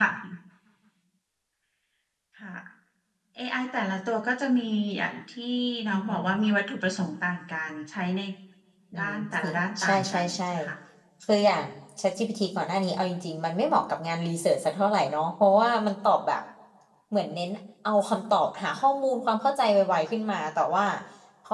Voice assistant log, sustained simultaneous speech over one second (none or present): present